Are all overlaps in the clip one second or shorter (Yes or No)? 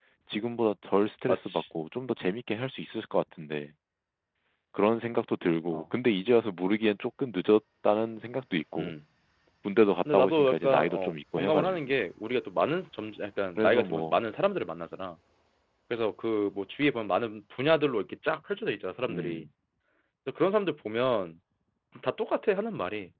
No